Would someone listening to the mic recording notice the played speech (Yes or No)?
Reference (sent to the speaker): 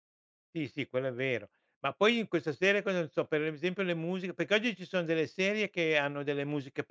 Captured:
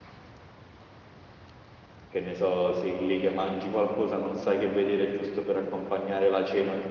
No